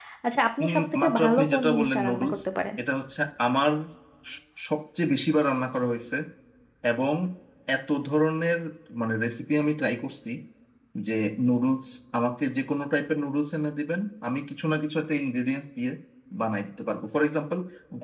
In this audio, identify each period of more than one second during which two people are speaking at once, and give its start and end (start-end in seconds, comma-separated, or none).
0.6-2.4